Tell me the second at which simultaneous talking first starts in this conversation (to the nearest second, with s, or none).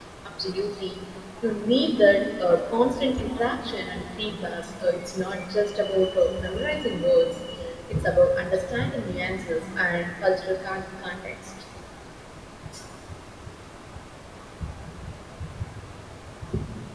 none